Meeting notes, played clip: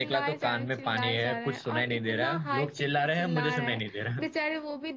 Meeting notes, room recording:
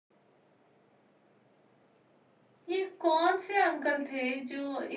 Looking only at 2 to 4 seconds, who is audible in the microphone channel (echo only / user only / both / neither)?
user only